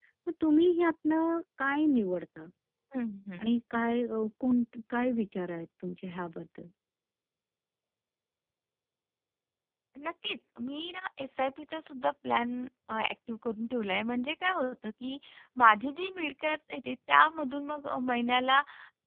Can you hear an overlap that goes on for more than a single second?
No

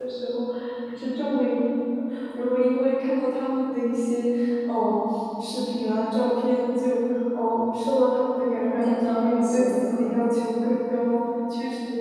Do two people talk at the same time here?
Yes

